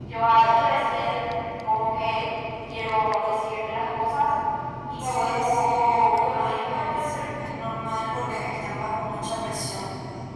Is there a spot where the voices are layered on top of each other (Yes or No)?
Yes